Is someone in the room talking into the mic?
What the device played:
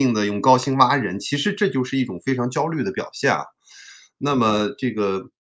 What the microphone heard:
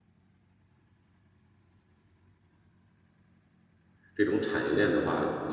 Yes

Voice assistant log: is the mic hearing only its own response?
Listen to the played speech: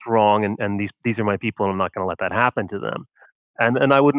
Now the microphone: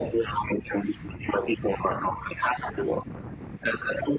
Yes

